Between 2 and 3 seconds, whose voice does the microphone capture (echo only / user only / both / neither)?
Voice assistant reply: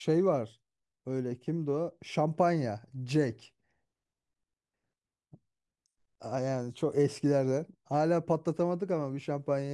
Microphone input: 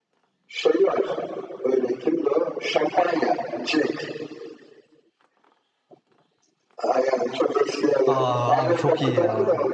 echo only